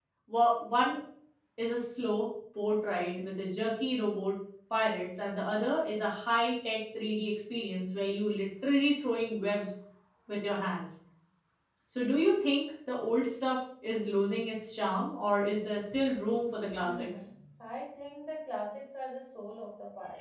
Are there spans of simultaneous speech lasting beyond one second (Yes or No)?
No